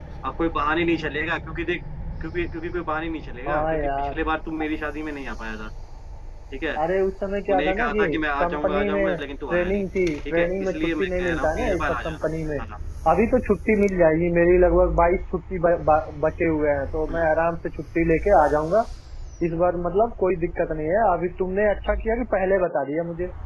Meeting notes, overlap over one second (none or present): present